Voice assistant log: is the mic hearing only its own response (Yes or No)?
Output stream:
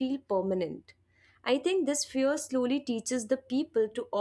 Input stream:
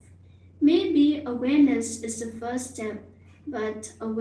No